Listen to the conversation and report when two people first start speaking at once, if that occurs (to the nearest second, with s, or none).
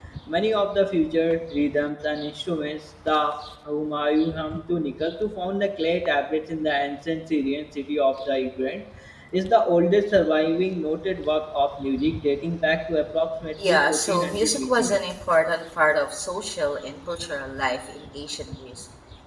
14 s